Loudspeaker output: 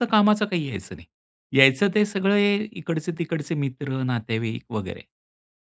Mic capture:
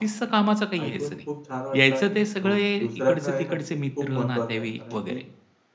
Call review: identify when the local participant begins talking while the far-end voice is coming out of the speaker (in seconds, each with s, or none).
0.8 s